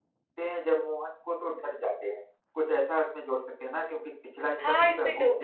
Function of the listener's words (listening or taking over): taking over